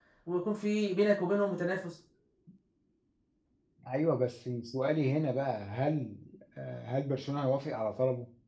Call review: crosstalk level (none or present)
none